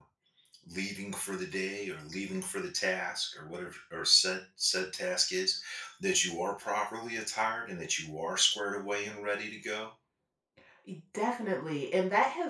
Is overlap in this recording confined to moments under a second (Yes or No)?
Yes